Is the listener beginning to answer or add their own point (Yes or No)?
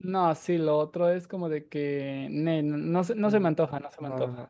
Yes